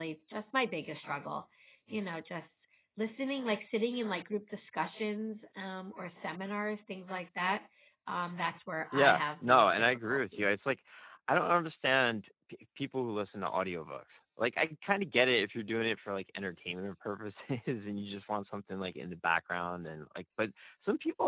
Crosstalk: present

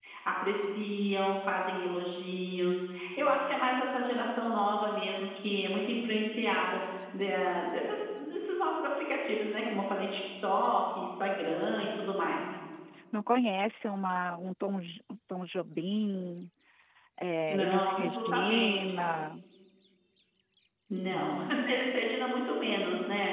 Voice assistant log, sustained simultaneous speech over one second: present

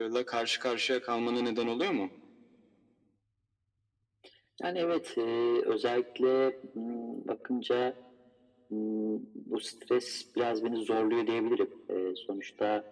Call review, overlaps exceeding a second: none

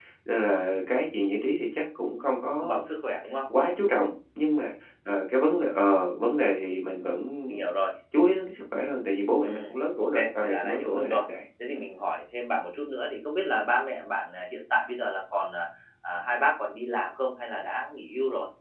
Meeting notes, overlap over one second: present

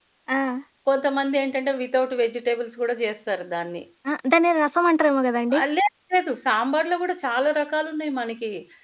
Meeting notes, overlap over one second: none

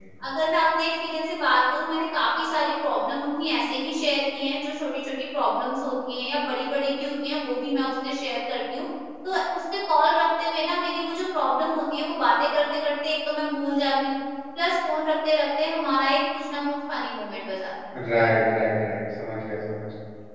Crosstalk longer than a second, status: none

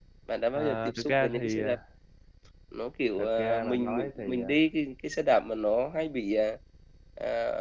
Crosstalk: present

